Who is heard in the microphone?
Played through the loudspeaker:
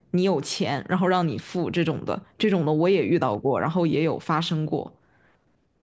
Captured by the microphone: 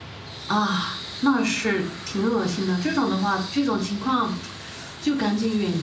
user only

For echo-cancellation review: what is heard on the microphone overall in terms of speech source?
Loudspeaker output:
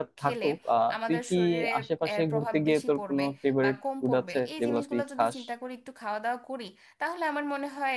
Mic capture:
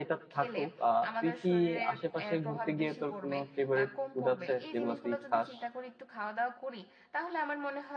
echo only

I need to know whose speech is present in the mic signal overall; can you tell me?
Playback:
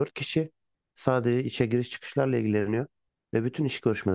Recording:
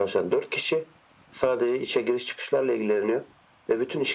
echo only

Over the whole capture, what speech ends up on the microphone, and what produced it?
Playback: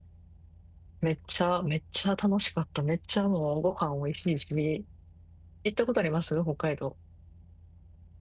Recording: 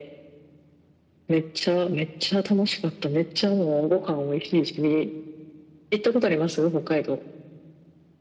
echo only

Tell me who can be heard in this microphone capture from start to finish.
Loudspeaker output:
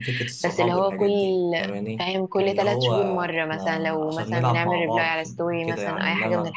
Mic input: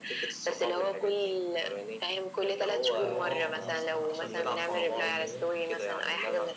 both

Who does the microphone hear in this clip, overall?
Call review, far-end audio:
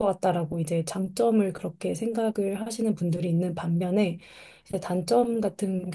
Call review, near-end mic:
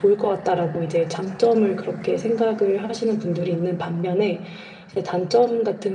echo only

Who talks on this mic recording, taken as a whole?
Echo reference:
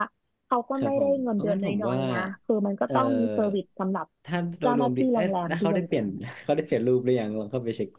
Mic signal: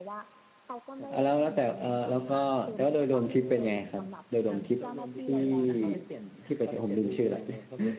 both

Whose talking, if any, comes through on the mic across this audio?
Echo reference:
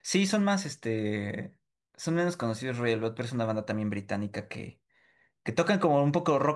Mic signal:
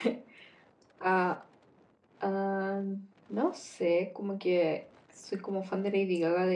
user only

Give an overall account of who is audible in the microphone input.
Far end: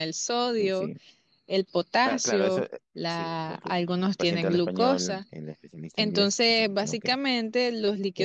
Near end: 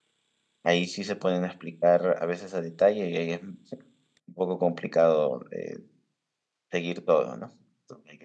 user only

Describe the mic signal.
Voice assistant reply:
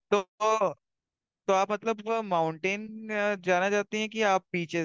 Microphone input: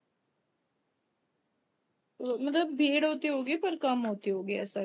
user only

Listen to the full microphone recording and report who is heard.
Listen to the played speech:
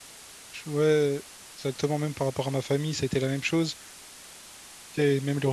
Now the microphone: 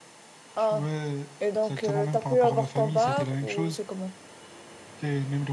both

